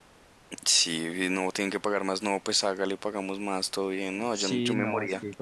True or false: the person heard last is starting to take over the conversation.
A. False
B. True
B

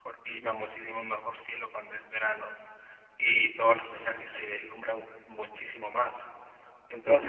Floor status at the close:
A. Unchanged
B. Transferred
A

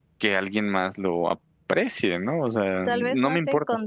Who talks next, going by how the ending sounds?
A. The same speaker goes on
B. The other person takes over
B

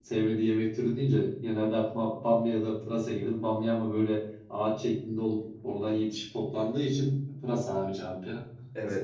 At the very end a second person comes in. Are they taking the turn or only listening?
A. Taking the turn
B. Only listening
A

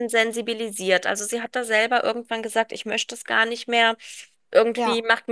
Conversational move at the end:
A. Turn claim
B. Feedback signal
B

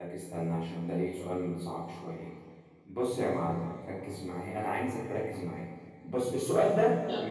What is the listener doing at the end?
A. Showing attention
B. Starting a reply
A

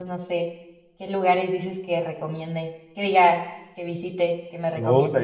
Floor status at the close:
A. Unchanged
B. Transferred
B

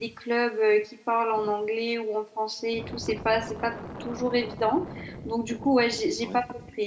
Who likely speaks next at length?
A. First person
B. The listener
A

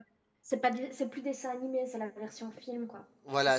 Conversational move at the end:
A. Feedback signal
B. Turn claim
B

